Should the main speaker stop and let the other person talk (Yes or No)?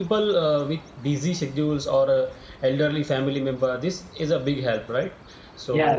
Yes